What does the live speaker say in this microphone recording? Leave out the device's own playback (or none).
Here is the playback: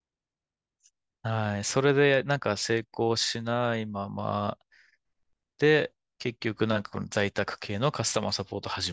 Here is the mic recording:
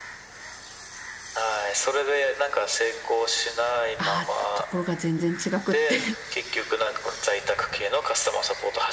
あ、ところが全然違くって